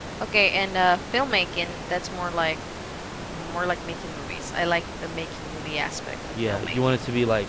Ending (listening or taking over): taking over